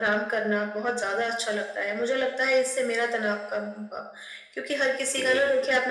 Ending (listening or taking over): listening